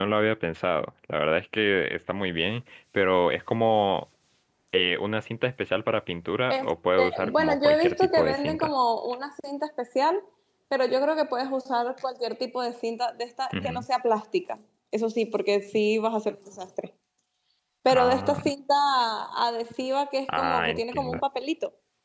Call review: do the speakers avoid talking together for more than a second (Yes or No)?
No